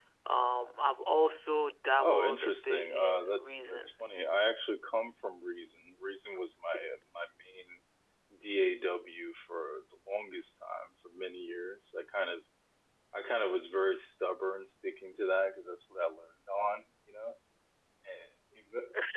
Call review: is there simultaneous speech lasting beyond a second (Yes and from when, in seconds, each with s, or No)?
Yes, from 2.0 s